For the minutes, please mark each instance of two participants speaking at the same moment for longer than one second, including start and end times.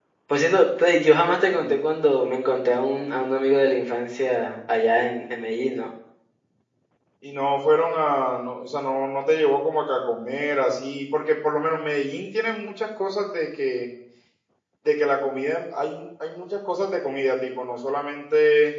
none

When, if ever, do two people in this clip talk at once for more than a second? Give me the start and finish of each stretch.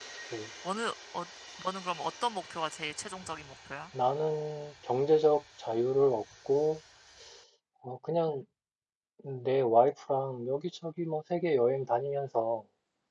none

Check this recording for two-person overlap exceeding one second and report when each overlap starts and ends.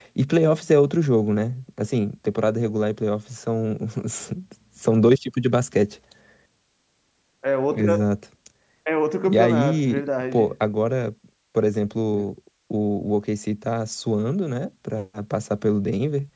9.2-10.5

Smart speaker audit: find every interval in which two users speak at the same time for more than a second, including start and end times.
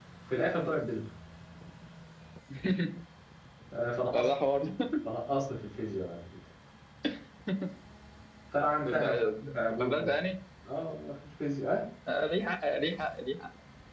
none

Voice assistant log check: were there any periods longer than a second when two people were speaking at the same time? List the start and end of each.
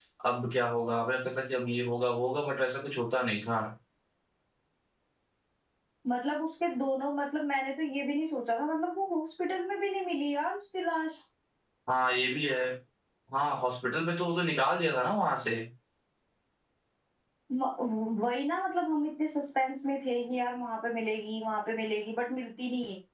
none

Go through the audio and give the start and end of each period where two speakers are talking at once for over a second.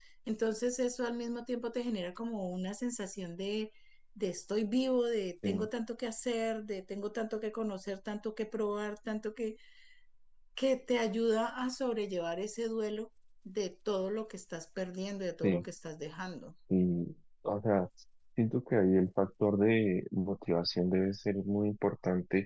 none

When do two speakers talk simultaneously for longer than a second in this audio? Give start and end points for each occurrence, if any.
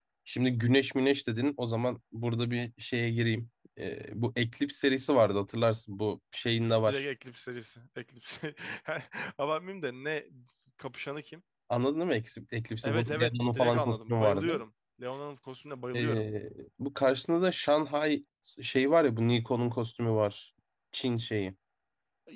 12.8-14.5

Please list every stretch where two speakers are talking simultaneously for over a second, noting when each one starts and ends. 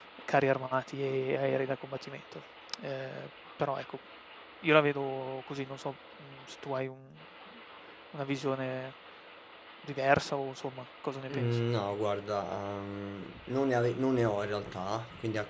none

